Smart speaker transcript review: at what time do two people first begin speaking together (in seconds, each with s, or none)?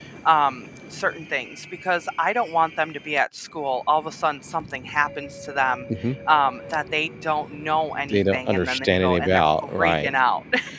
8.1 s